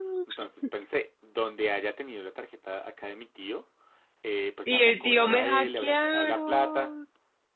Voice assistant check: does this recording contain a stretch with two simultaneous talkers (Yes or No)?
Yes